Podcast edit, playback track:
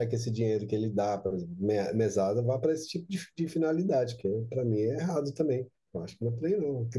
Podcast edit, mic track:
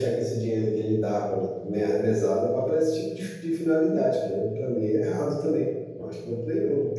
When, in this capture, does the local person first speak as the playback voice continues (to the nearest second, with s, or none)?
none